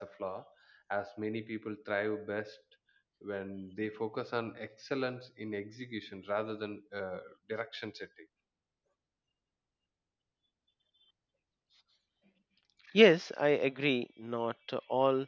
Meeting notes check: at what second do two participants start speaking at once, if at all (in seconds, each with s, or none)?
none